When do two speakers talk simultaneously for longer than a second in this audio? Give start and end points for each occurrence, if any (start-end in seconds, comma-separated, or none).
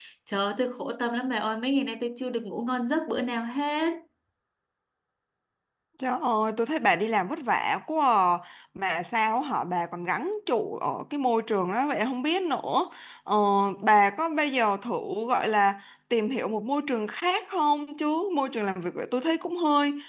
none